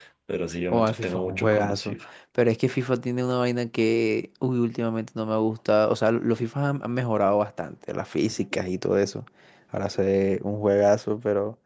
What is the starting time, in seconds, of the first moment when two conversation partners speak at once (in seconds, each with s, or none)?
0.7 s